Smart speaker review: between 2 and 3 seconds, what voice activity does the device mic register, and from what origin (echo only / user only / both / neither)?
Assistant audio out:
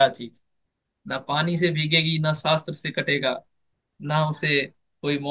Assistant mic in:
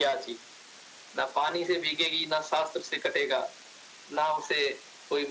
echo only